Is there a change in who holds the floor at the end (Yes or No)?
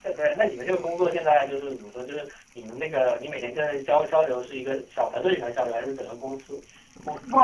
Yes